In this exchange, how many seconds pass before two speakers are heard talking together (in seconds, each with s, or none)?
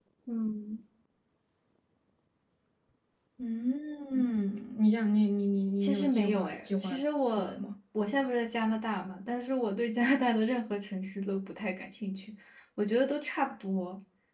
5.8 s